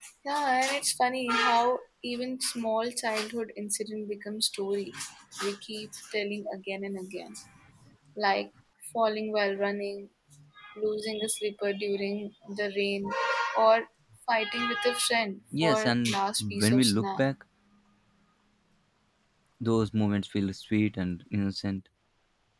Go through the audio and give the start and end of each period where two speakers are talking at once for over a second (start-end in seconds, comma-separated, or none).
15.6-17.2